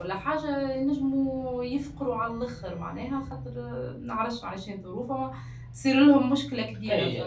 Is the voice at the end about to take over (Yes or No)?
Yes